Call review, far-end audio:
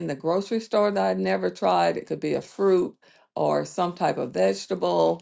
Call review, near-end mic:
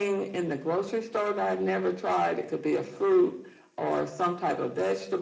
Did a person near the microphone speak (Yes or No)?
No